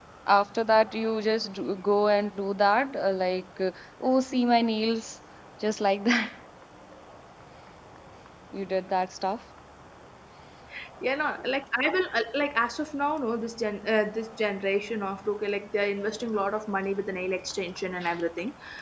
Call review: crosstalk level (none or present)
none